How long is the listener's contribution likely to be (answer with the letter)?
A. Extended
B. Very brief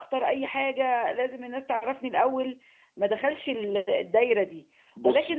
B